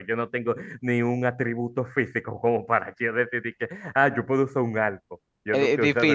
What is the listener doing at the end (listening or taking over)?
taking over